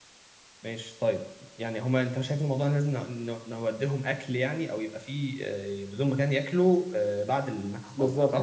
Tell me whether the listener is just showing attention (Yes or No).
No